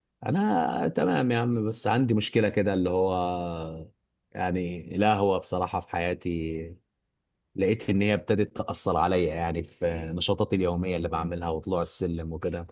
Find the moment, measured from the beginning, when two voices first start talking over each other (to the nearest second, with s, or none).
none